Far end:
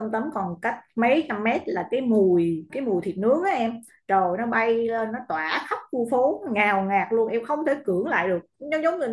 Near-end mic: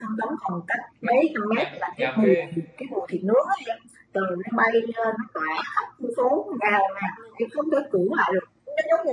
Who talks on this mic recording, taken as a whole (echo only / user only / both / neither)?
both